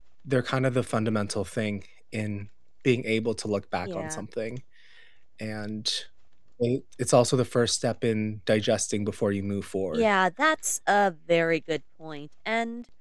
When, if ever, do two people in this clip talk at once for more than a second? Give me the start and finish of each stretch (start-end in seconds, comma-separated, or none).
none